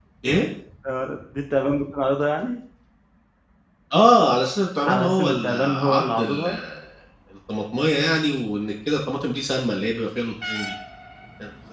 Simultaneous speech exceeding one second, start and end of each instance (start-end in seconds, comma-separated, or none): 4.8-6.5